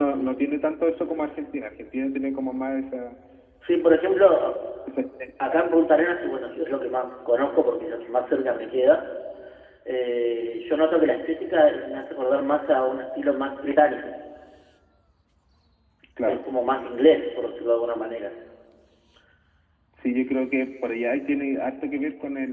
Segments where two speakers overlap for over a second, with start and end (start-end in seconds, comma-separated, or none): none